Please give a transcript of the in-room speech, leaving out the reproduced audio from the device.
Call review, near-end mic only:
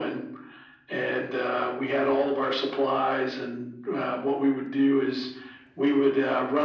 none

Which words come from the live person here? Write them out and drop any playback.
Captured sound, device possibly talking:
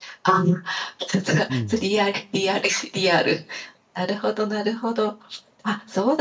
うん。

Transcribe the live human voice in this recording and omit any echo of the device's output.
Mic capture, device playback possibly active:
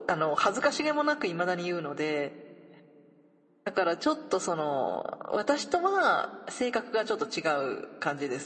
none

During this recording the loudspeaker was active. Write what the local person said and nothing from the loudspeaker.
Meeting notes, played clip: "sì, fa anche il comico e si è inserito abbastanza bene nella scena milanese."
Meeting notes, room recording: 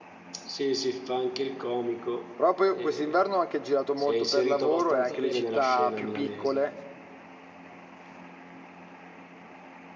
Però poi quest'inverno ho anche girato molto per lavoro e anche le città più piccole,

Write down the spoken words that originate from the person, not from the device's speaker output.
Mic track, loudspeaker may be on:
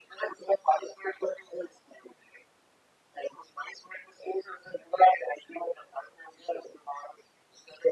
none

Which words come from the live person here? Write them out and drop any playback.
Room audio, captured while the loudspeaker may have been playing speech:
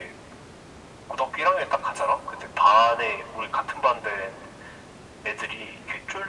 none

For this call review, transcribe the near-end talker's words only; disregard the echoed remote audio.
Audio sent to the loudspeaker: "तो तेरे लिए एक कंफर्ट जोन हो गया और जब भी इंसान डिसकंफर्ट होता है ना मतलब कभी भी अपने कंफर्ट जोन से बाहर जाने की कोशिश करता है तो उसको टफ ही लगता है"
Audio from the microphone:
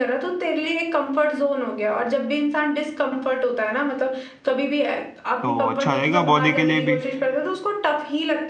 तो अच्छा रहेगा बॉडी के लिए भी

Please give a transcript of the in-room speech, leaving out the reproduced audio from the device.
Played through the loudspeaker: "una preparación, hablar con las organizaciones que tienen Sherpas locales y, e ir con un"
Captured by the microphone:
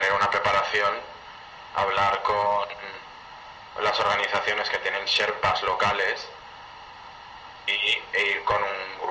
none

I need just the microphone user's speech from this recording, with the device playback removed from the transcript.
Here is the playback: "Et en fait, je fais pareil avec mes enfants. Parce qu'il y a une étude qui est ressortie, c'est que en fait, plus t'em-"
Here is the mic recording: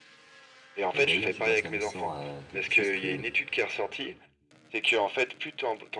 Et d'ailleurs, tu vois, ça me sort à quelque chose que,

